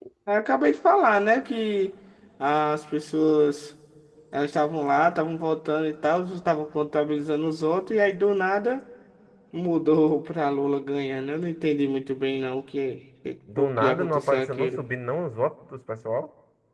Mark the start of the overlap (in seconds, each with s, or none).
13.6 s